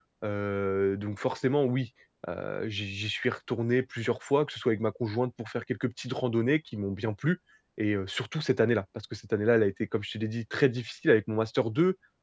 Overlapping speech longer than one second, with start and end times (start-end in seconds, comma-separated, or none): none